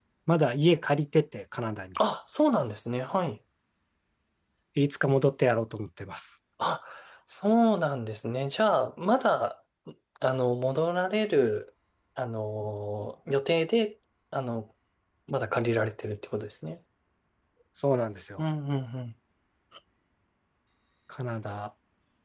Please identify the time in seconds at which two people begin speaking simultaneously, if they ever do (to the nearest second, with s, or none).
none